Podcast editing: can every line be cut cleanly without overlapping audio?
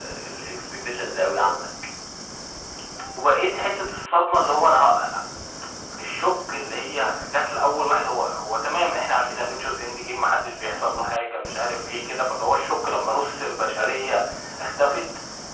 Yes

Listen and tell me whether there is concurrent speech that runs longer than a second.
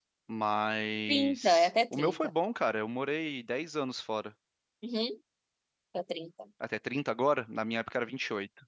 Yes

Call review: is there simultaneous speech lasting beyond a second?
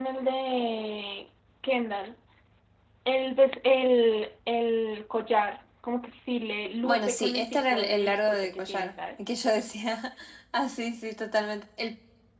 Yes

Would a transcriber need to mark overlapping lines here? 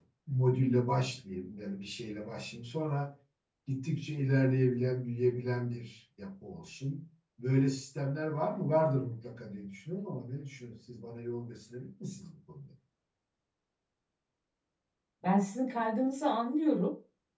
No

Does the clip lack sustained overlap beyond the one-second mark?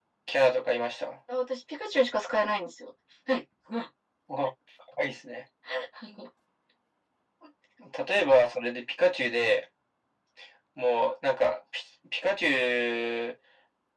Yes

